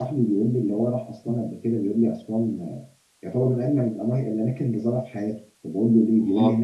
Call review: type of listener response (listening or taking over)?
listening